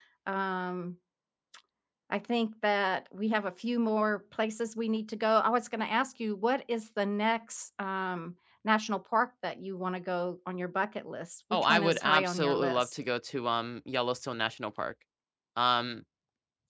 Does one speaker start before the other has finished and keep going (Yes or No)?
Yes